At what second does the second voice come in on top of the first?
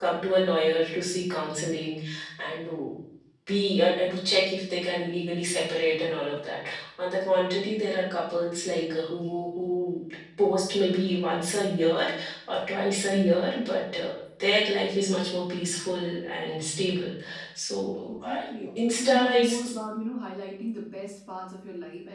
18.1 s

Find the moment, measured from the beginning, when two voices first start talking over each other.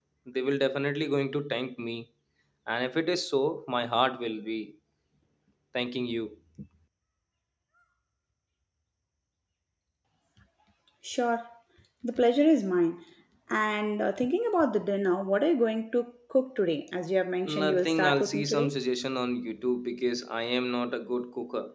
17.4 s

